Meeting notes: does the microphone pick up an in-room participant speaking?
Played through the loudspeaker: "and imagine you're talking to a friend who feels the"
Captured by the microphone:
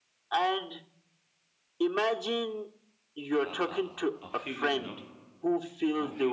Yes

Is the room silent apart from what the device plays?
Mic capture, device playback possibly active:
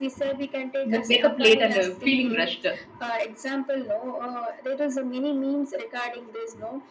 No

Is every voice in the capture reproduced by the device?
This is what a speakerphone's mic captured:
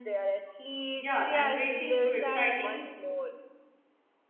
No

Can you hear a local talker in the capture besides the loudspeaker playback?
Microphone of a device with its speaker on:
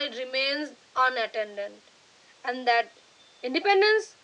No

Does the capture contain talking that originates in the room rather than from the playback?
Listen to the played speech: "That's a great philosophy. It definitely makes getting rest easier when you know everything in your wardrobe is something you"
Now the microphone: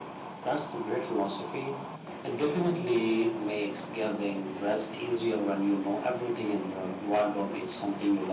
No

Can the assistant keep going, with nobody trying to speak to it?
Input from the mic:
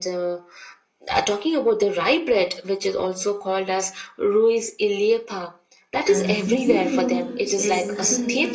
No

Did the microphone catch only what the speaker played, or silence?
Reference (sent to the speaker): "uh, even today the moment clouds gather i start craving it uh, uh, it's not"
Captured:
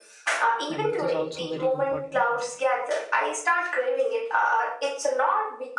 No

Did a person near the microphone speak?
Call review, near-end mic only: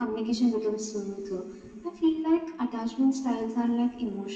No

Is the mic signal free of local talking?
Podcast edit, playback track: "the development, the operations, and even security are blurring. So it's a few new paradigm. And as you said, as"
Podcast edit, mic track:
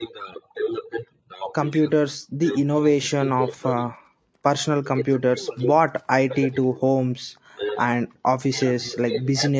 No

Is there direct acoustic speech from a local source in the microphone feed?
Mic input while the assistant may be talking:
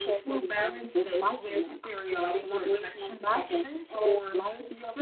No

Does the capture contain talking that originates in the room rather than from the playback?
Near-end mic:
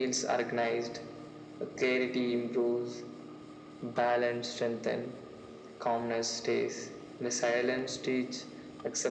No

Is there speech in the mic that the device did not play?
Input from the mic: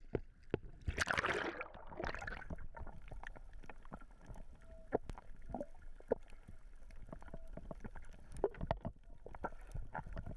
No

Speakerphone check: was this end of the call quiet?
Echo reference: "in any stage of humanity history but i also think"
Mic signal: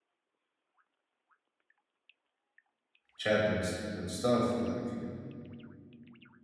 No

